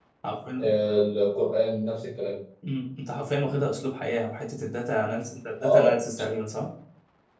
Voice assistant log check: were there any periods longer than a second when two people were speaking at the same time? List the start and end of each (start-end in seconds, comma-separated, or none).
none